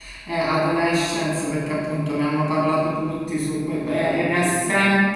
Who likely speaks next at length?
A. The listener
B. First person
B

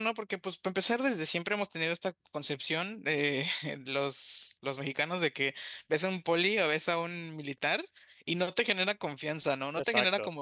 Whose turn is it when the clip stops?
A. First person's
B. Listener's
B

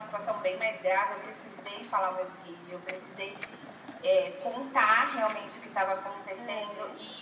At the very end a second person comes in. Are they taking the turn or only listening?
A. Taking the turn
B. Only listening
B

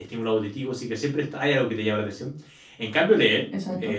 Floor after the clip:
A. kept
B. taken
A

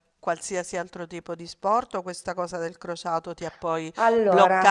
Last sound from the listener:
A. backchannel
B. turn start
A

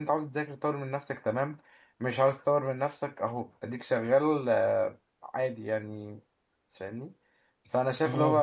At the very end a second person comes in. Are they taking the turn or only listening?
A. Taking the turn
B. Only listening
B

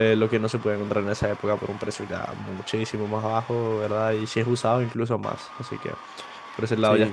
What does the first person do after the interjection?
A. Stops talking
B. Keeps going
B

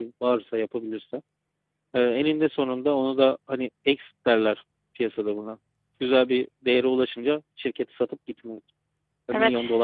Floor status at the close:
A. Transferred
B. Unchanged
A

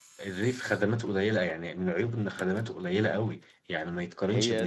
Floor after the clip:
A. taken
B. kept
B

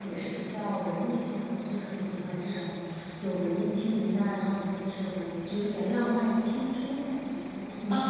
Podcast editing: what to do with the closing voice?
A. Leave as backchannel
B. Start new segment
B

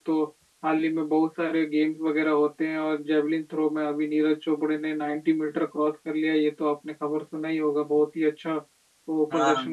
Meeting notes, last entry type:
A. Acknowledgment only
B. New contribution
A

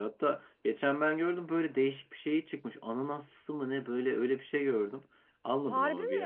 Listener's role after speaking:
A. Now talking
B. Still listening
B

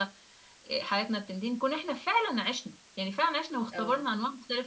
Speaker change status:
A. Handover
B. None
B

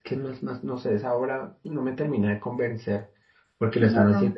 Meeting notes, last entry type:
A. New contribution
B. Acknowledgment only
B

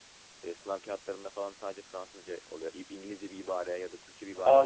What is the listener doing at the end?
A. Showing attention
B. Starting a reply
B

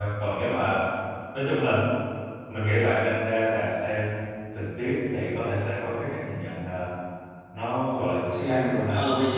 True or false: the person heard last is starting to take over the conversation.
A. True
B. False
A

